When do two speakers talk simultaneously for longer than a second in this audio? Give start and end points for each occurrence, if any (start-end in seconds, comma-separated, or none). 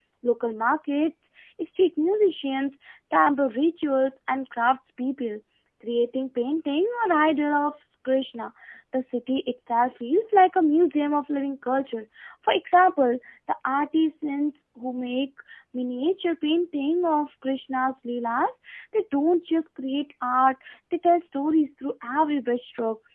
none